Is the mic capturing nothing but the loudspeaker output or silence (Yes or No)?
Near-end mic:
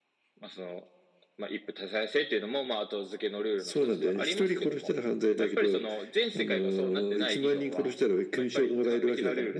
Yes